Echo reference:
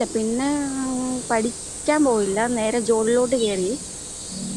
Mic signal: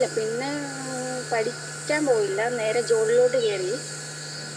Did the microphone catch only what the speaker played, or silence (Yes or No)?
Yes